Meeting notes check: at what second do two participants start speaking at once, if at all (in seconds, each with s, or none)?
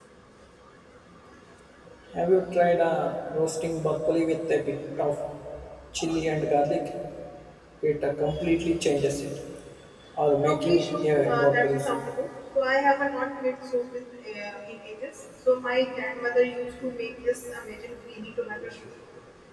10.4 s